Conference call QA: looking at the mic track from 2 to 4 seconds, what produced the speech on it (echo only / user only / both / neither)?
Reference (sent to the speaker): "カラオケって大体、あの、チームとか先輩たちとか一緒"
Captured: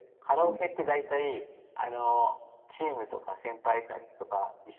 echo only